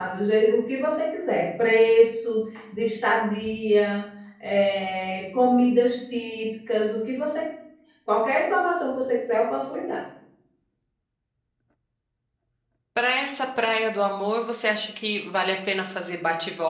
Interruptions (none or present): none